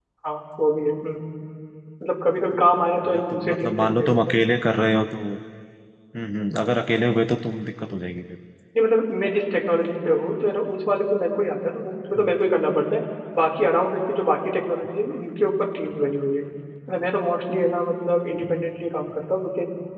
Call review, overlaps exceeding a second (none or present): present